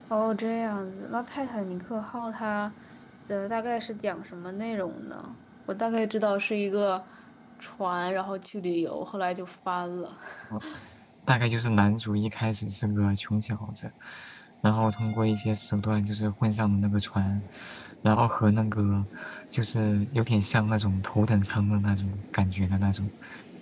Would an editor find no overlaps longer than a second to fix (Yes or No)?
Yes